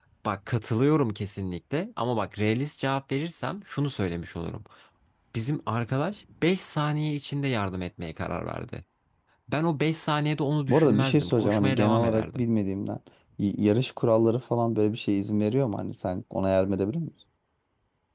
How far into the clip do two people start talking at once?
10.7 s

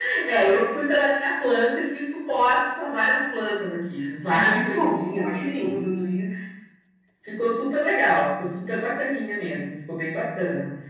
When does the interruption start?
4.3 s

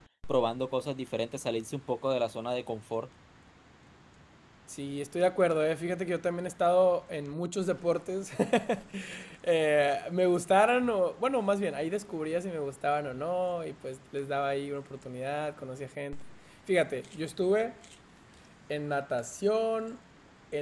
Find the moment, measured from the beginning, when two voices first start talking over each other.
none

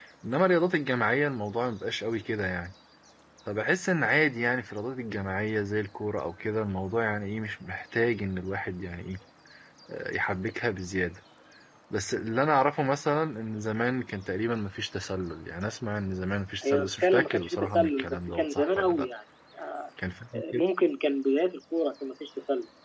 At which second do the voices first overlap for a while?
16.6 s

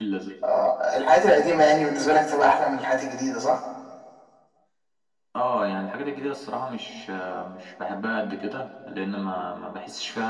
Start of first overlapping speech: none

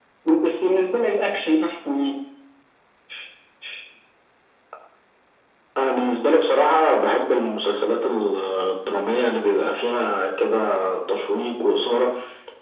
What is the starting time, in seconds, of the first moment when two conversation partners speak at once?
none

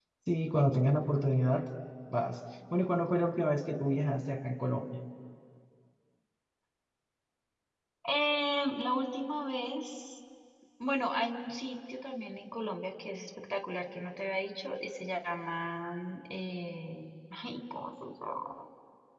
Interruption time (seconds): none

